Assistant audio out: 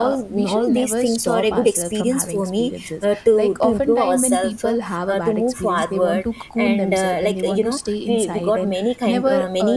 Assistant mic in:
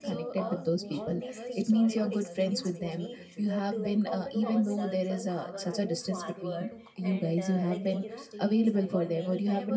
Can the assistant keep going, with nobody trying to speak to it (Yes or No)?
No